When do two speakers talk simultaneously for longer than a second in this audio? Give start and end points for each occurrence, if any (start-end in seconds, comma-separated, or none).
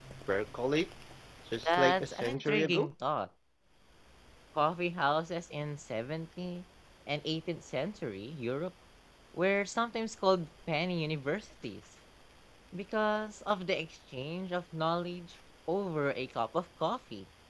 1.6-2.9